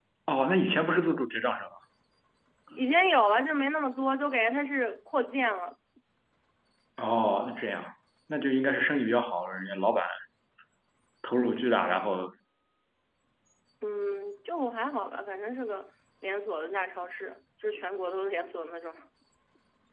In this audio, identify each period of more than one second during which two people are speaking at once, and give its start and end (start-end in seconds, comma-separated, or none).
none